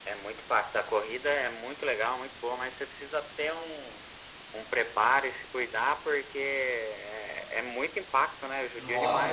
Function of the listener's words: taking over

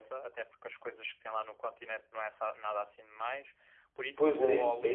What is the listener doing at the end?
taking over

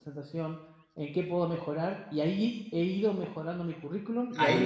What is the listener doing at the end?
taking over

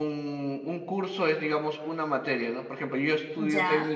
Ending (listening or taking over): listening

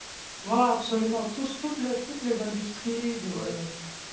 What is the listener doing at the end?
listening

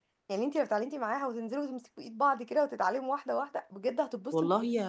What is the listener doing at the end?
taking over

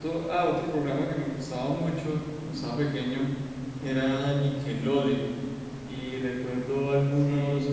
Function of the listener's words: listening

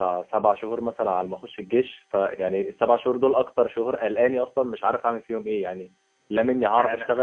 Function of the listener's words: listening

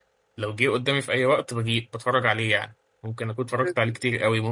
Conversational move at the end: listening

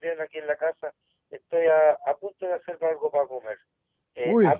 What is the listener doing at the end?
listening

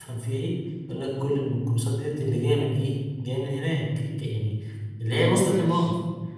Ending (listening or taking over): listening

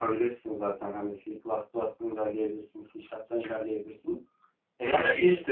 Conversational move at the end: taking over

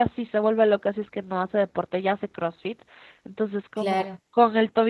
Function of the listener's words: listening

